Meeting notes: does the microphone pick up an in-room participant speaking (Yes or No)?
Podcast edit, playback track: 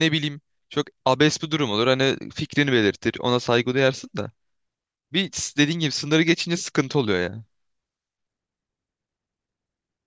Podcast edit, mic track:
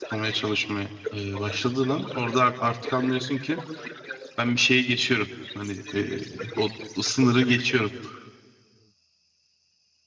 Yes